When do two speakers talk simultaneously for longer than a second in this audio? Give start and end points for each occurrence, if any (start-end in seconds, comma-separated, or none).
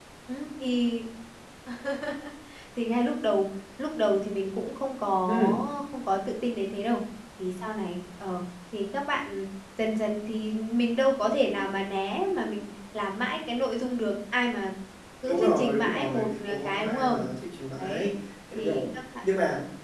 15.2-17.3